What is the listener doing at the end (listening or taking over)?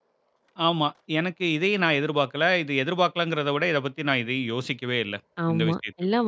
taking over